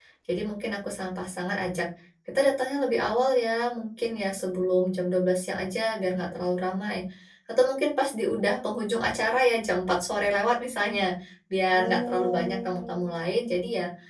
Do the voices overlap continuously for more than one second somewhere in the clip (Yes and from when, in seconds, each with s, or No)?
Yes, from 11.7 s